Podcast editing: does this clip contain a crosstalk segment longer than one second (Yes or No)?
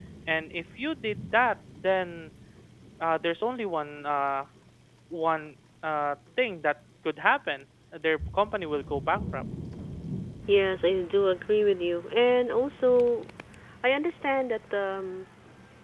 No